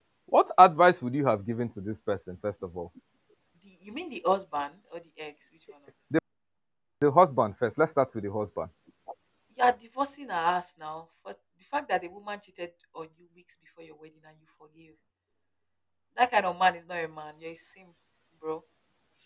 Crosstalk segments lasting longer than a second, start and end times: none

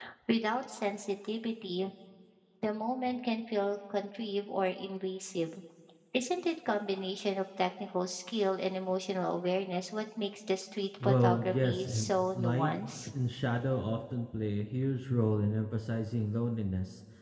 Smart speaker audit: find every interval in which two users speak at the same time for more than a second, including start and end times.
11.0-12.7

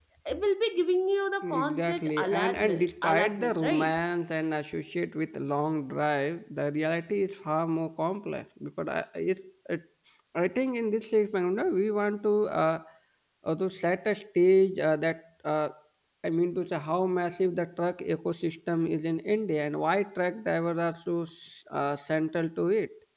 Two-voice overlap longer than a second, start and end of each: 1.4-4.0

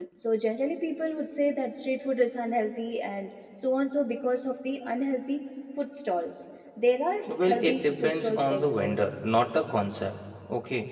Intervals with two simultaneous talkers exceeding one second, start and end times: 7.4-9.0

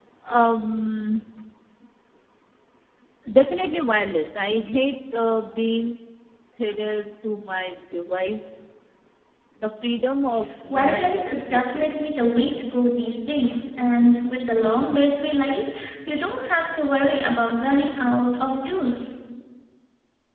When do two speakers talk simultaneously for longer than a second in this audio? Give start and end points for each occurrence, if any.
10.7-12.4

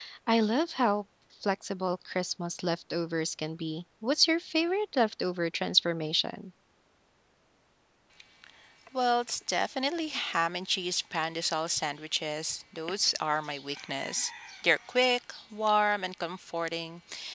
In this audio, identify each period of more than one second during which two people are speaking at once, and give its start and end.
none

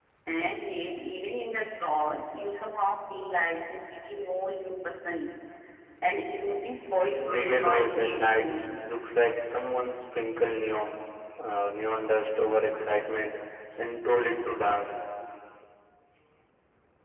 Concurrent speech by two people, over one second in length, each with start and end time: 7.2-8.4

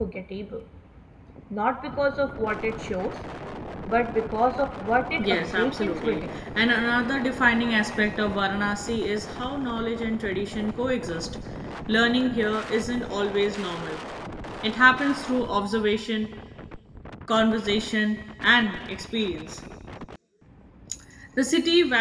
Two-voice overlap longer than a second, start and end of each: 5.2-6.4

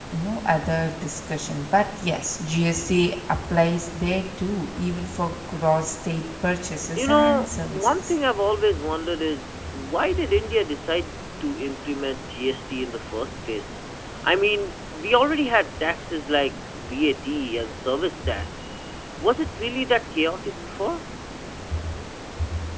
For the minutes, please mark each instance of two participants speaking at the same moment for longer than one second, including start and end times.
7.0-8.2

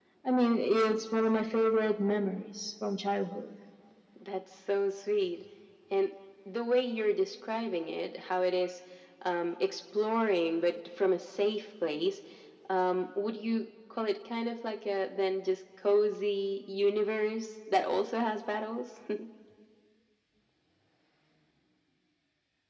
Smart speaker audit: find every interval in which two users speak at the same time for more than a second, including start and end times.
none

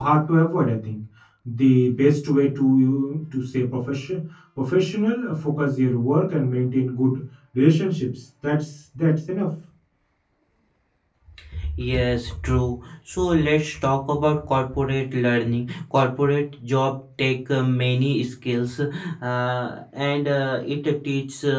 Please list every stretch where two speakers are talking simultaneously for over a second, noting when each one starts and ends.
none

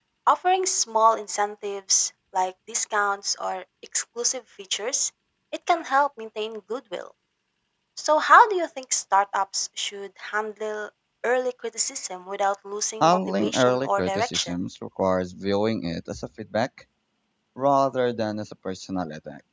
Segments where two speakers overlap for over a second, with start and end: 13.0-14.5

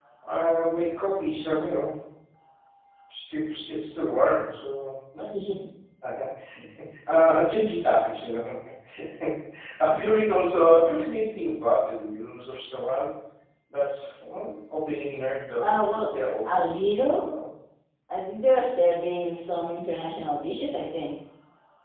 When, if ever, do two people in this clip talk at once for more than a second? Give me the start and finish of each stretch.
none

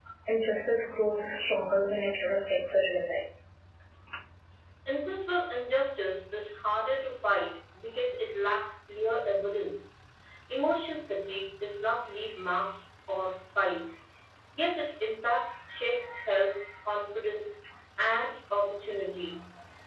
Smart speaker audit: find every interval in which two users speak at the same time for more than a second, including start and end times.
none

